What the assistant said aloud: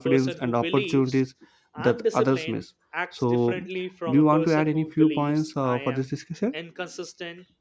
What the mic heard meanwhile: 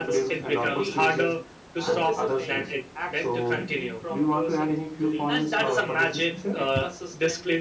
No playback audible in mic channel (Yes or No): No